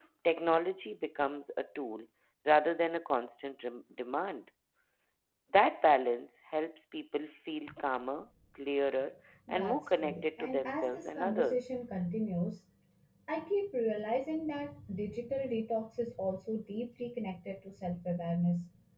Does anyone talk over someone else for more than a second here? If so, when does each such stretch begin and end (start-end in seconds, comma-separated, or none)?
9.5-11.7